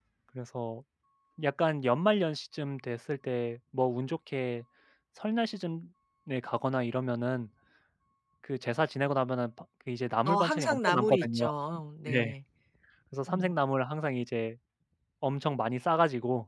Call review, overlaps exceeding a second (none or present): present